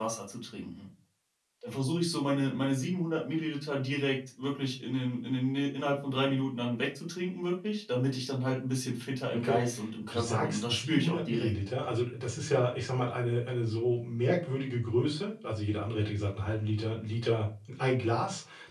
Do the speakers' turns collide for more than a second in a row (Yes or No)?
Yes